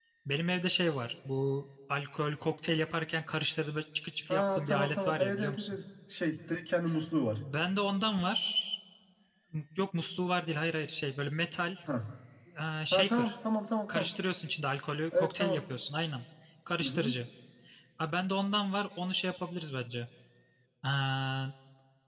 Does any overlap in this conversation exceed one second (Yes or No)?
Yes